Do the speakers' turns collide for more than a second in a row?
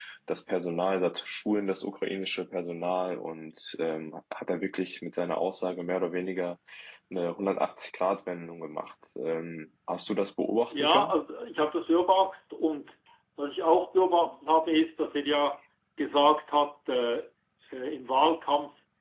No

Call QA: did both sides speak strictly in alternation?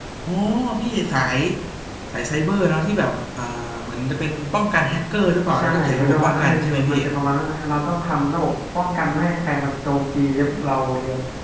No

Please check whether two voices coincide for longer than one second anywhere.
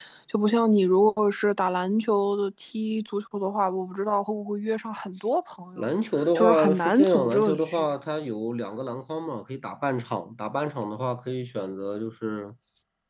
Yes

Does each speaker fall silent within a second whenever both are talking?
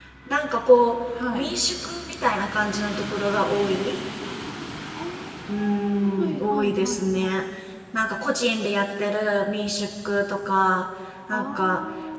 No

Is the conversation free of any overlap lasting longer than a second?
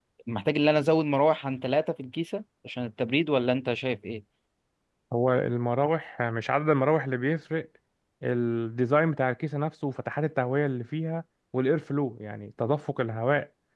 Yes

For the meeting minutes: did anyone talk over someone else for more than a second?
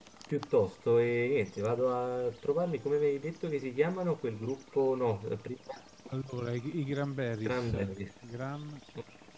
No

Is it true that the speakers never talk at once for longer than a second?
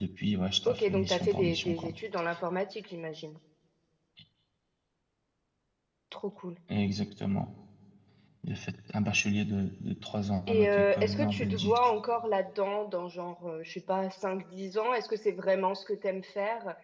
No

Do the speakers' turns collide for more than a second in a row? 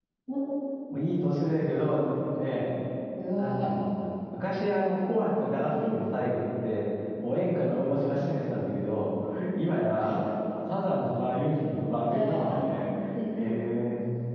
No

